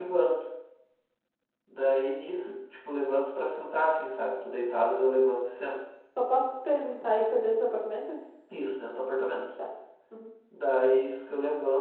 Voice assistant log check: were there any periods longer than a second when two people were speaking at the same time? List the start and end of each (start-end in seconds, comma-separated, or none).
none